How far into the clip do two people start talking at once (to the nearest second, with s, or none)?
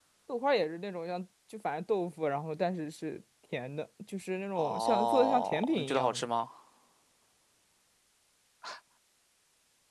5 s